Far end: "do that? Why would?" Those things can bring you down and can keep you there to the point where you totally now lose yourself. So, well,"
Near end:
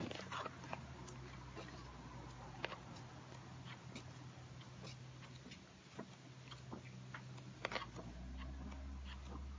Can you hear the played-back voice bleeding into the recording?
No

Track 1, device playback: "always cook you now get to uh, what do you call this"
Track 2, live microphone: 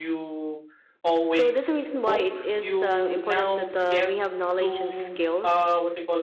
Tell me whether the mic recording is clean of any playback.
No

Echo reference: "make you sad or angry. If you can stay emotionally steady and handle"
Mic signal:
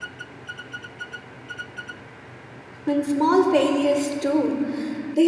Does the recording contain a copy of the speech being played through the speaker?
No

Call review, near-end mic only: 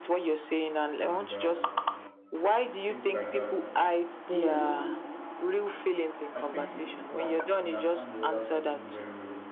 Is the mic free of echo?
No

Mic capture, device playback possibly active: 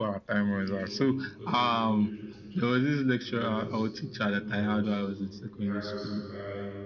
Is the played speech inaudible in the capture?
No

